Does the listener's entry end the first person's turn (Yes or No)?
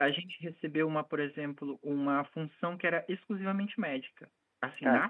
No